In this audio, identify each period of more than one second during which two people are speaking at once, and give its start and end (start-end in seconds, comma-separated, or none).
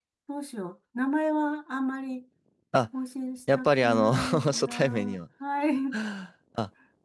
3.5-5.2